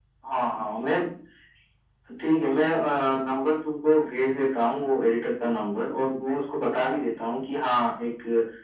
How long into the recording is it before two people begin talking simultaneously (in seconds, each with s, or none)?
none